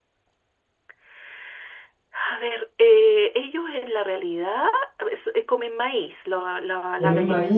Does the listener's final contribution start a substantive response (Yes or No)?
Yes